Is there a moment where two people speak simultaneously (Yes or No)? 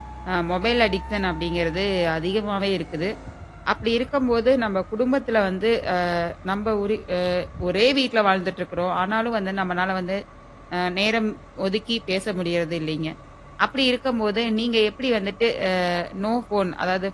No